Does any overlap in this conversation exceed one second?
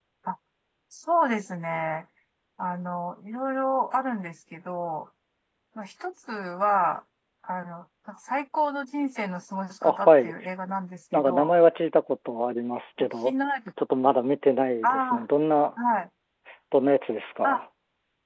No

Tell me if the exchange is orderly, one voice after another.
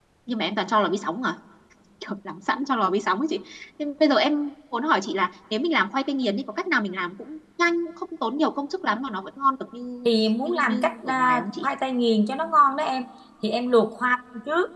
No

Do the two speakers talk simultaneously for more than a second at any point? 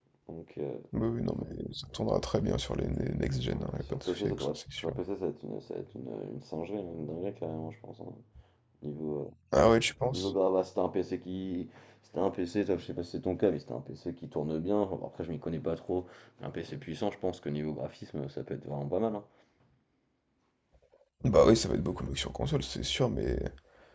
Yes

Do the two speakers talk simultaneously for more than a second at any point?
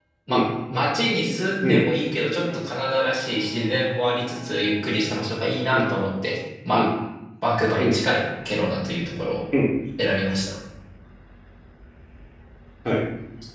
No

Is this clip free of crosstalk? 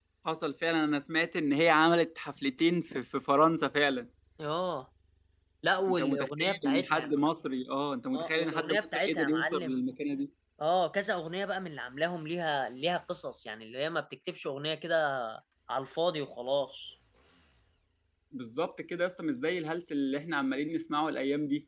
No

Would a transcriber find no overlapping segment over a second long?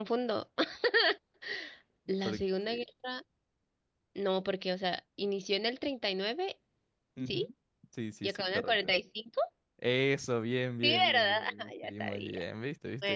No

